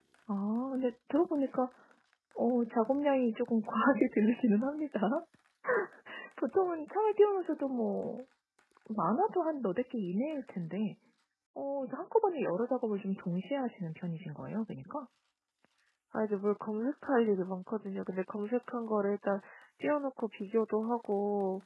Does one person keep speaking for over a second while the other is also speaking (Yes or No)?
No